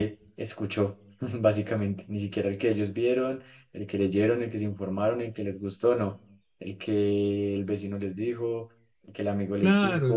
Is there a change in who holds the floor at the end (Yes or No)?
Yes